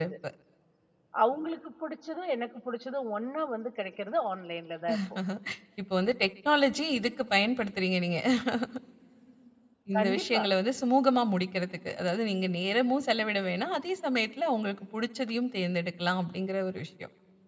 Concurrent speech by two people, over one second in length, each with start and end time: none

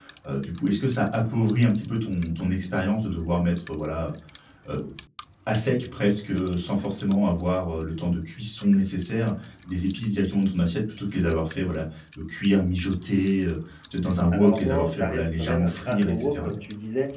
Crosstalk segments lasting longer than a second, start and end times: 14.3-16.5

